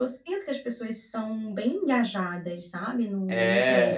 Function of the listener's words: taking over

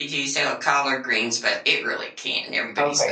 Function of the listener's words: taking over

